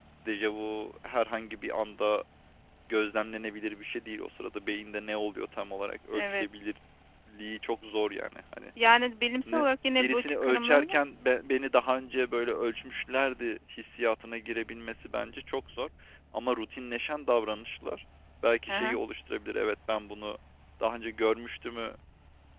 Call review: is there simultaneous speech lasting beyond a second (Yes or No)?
Yes